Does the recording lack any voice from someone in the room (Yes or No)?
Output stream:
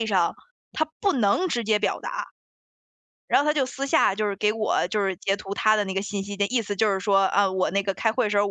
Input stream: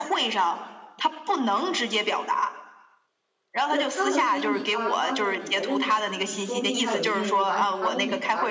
No